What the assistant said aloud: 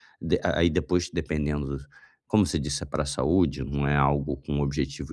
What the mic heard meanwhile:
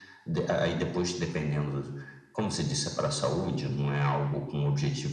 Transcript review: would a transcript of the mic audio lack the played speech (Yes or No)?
No